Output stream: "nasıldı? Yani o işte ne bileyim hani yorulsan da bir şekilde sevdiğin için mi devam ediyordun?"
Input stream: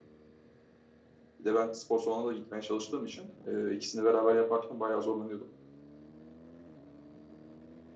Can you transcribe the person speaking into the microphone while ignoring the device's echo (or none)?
Bir de ben spor salonuna da gitmeye çalıştığım için e, ikisini beraber yaparken bayağı zorlanıyordum.